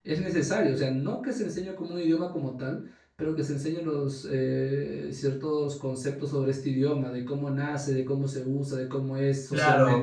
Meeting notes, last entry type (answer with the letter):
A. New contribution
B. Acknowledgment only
A